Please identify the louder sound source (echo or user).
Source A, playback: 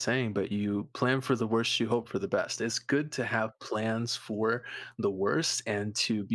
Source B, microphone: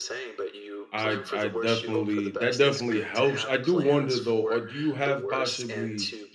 user